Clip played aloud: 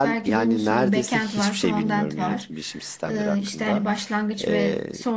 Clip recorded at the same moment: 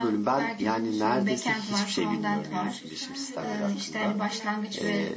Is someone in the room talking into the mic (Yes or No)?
Yes